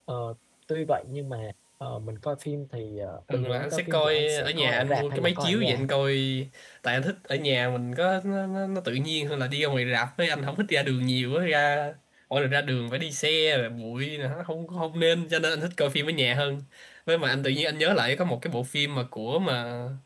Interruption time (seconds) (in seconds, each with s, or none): 3.3 s